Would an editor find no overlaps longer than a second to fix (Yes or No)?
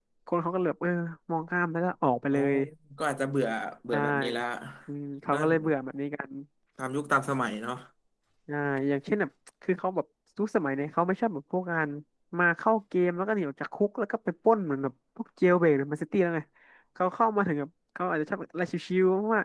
Yes